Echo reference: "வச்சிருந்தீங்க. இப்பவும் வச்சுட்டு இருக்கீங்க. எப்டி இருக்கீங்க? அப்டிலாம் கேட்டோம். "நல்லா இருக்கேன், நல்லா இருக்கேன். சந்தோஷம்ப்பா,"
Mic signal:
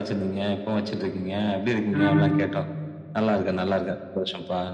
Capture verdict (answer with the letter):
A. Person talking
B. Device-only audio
A